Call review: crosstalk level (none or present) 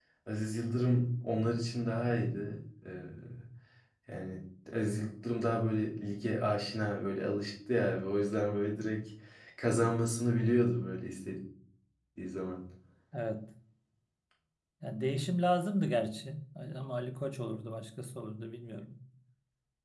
none